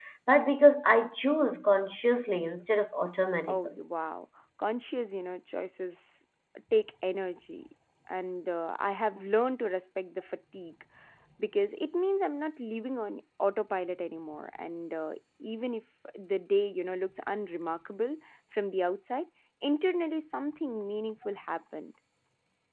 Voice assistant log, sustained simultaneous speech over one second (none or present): none